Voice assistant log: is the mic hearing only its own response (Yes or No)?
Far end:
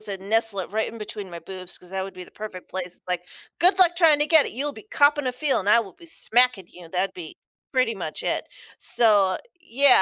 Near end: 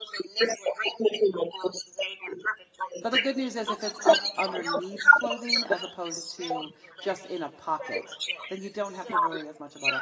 No